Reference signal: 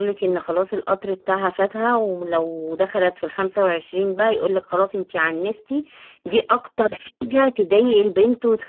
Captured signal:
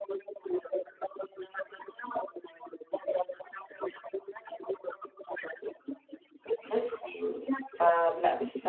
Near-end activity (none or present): present